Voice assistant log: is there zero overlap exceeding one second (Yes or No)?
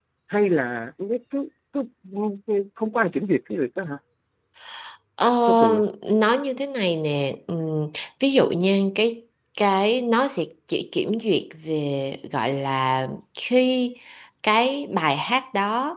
Yes